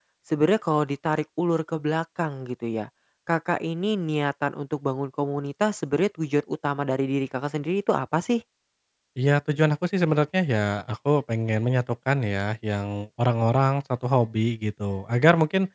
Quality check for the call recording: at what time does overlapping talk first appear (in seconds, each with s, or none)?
none